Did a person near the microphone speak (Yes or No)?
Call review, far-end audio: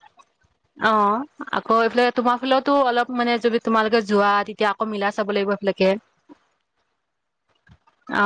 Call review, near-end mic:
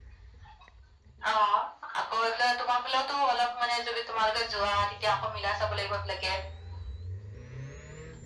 No